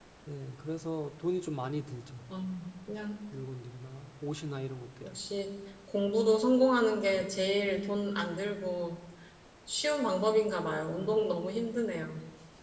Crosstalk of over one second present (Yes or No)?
No